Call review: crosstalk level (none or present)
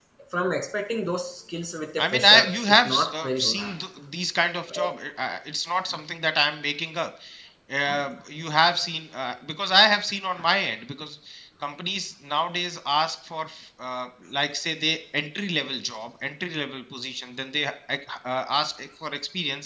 present